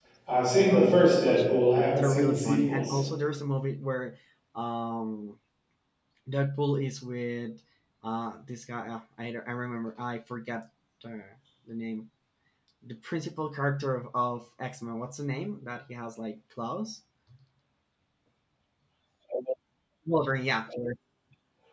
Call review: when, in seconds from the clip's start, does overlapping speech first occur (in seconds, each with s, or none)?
0.7 s